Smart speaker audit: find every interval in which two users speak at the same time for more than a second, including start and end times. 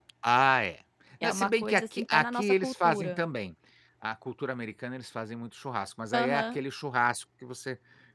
1.2-3.2

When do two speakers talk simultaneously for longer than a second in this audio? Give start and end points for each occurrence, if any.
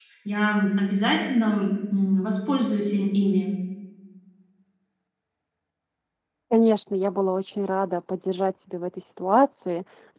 none

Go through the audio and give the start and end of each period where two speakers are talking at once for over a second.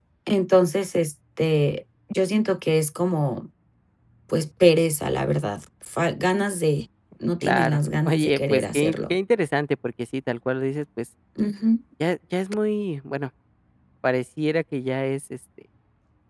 7.4-9.2

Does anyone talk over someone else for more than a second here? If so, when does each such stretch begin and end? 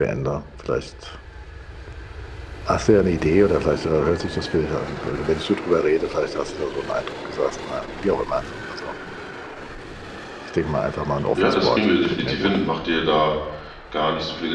11.4-12.6

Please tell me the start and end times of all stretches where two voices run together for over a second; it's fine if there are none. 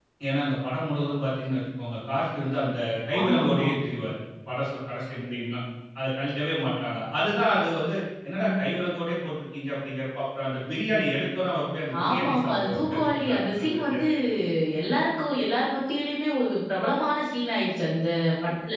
12.0-14.0

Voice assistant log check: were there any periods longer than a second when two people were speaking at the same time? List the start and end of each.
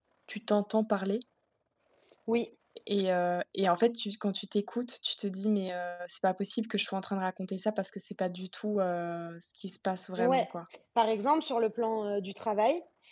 none

